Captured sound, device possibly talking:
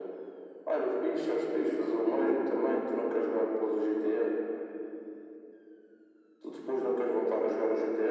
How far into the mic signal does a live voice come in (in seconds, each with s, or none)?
none